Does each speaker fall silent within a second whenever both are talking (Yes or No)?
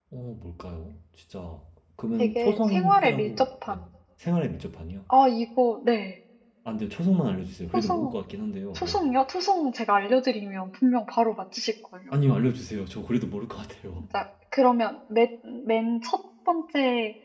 No